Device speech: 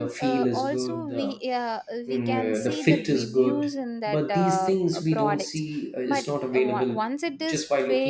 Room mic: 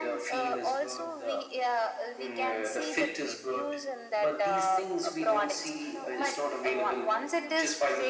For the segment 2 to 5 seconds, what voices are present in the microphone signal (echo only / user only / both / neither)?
echo only